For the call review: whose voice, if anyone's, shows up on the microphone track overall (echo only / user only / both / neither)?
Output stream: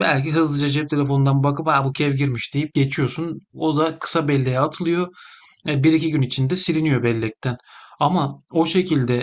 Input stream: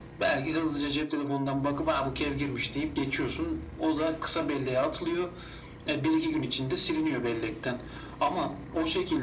echo only